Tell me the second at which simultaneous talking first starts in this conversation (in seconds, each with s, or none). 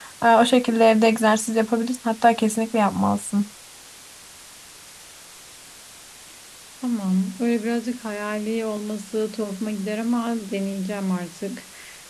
none